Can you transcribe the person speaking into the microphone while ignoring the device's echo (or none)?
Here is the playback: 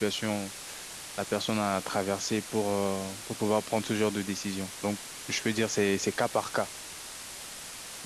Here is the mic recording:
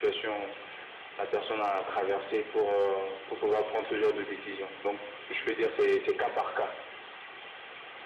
none